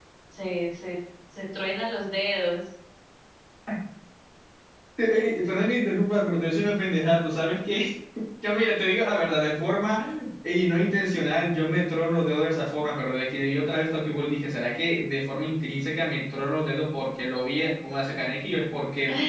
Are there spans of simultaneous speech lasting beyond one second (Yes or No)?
No